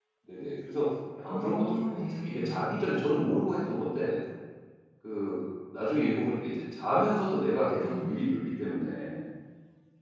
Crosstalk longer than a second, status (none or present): present